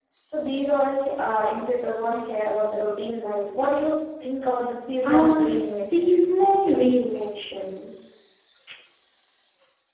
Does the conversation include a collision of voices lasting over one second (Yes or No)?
Yes